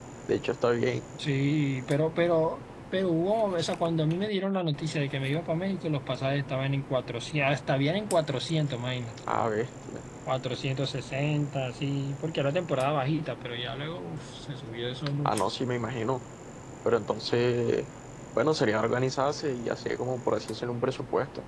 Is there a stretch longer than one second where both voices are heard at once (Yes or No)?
No